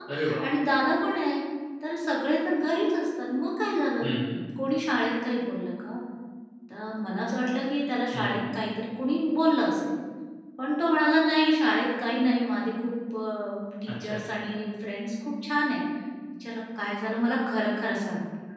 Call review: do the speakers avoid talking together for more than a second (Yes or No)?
Yes